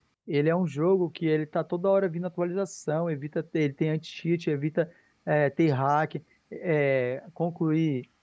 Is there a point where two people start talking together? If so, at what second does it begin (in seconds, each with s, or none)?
none